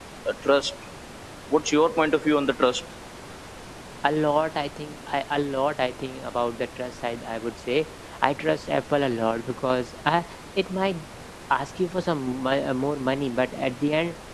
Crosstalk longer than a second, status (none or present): none